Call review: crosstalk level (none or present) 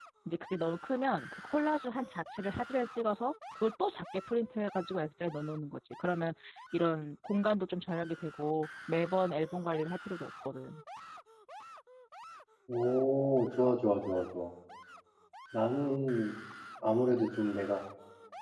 none